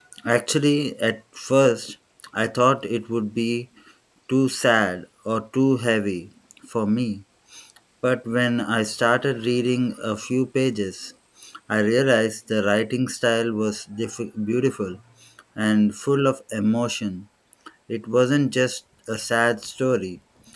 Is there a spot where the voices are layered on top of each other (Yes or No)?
No